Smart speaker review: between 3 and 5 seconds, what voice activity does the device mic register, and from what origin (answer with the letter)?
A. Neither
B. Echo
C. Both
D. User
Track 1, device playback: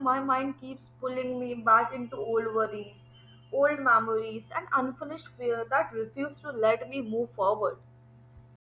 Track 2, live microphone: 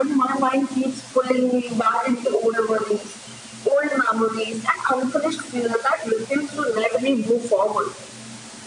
B